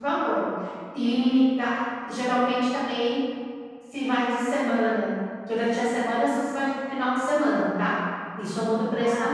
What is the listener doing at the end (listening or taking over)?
taking over